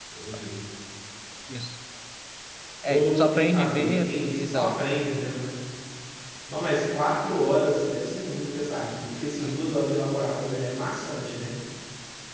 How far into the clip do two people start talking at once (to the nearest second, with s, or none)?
3 s